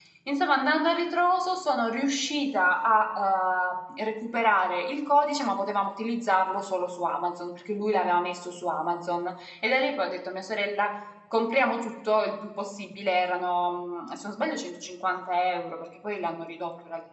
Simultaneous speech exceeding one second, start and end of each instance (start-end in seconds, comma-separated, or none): none